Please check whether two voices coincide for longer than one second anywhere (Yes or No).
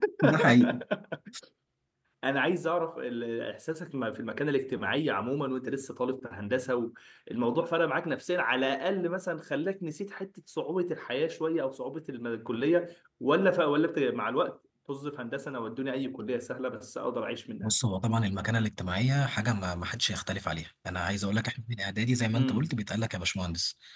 No